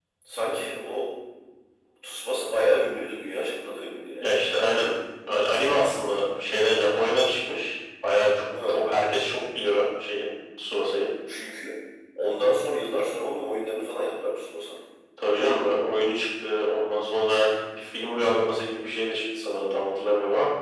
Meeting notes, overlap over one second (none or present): none